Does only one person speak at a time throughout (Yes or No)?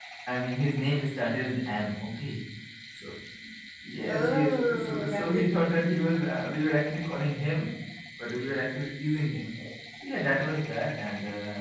No